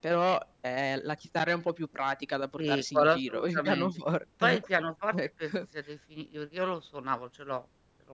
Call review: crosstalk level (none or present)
present